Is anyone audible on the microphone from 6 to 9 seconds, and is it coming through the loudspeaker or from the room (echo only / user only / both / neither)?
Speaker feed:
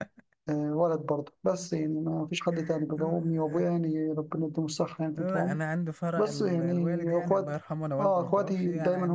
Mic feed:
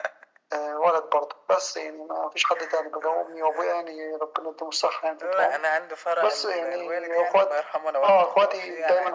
echo only